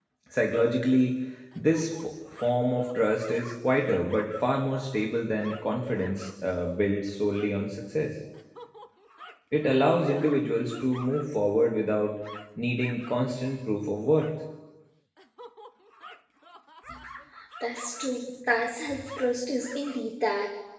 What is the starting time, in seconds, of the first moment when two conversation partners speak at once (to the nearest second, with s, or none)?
none